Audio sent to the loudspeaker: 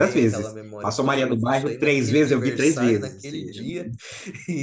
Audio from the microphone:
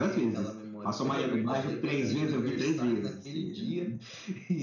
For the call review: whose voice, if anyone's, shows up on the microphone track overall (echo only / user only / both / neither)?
both